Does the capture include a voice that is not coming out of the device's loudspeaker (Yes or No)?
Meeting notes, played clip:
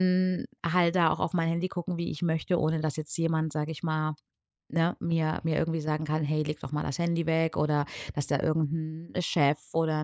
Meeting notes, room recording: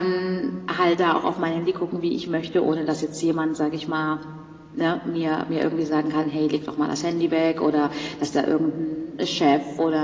No